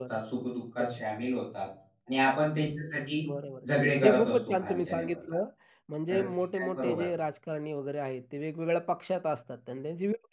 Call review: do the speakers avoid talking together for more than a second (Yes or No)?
No